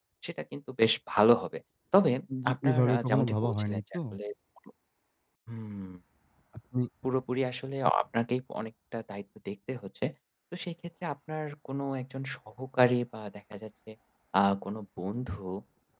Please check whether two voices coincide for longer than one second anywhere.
Yes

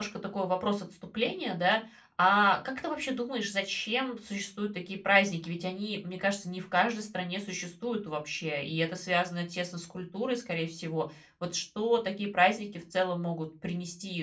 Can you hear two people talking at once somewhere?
No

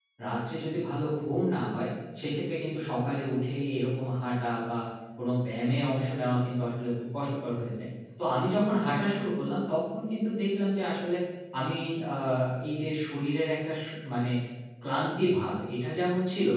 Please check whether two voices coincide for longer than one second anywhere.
No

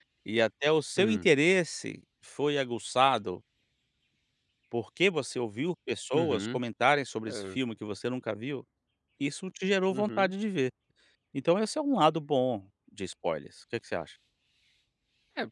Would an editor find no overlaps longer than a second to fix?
Yes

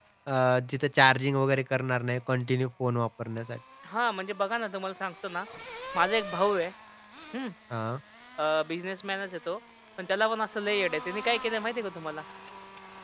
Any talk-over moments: No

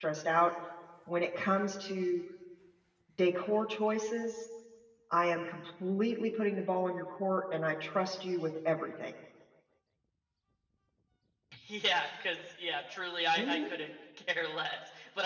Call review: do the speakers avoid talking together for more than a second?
Yes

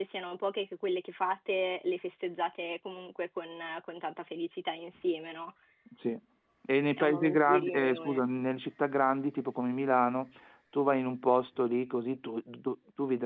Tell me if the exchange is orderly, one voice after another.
No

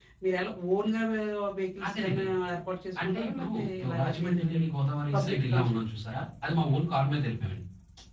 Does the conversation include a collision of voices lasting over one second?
Yes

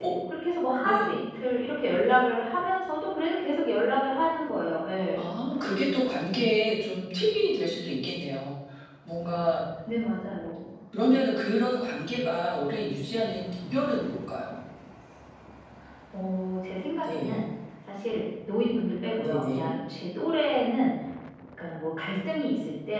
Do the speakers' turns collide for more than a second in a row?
No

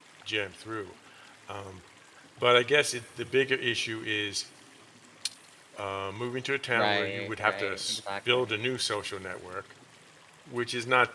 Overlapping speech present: Yes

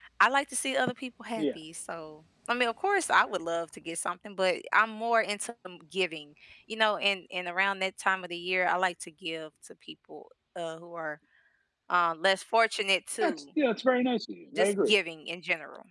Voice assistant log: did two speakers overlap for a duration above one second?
No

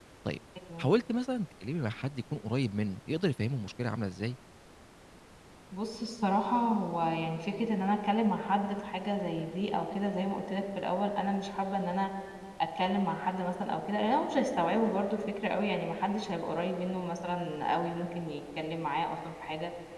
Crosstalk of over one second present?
No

